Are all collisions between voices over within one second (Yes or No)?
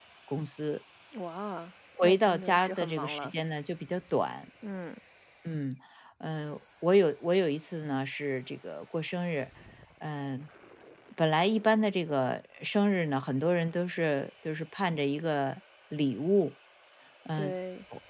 No